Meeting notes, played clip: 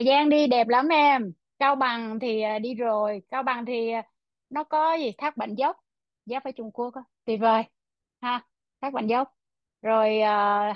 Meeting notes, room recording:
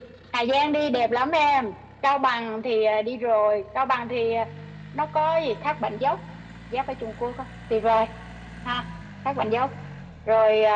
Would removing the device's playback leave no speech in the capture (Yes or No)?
Yes